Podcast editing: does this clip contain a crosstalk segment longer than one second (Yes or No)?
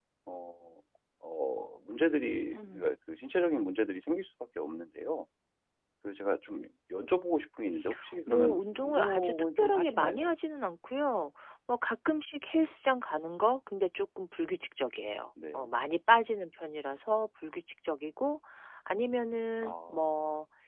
Yes